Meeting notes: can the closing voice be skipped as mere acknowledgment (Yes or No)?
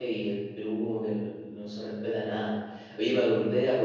Yes